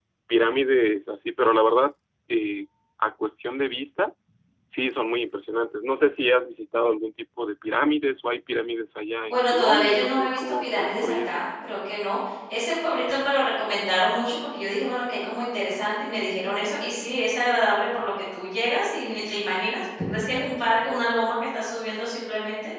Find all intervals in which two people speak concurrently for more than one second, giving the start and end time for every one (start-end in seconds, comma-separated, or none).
9.2-11.4